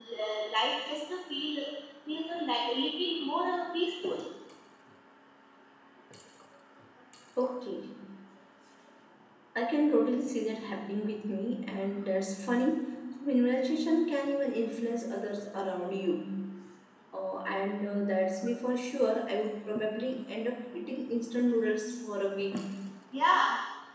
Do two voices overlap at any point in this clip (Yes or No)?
No